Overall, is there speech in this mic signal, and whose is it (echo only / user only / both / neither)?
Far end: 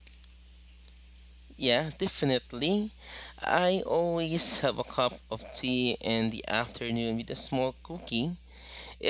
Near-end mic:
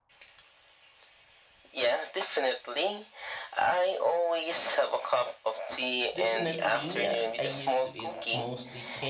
both